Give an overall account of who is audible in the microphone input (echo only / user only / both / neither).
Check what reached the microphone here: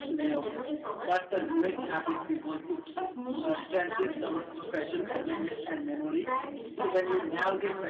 both